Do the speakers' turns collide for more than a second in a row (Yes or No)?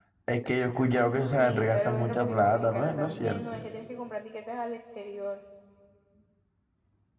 Yes